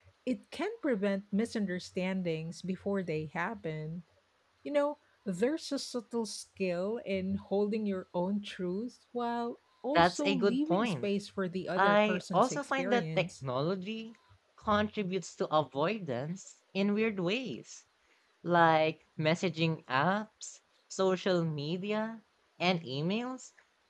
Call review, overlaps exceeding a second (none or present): present